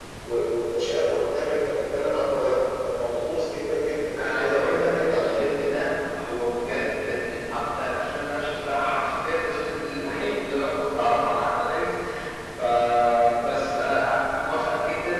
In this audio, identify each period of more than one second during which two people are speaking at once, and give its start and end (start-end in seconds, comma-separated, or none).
4.2-5.7